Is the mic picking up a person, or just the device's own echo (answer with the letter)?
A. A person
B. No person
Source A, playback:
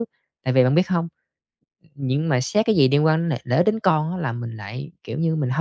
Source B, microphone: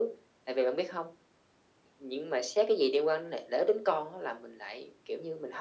B